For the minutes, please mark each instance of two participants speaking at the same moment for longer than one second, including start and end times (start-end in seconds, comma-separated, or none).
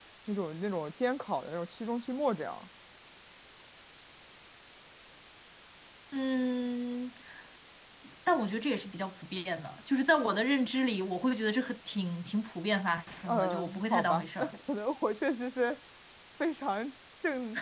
13.2-14.5